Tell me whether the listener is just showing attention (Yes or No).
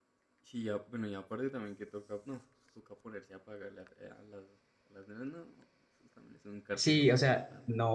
No